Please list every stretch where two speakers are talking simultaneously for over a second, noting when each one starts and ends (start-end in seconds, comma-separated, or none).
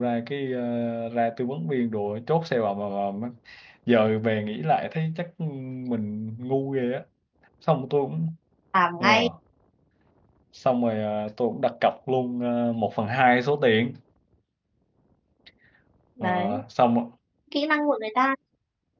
none